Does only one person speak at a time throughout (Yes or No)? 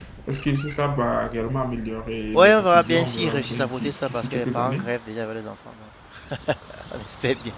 No